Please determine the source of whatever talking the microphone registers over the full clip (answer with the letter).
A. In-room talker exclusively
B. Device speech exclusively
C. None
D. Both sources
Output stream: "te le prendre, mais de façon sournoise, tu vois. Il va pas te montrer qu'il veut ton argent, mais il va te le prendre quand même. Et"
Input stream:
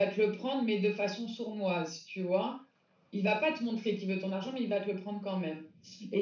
B